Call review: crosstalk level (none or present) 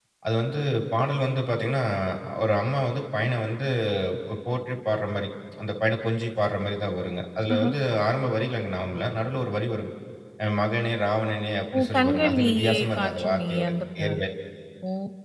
present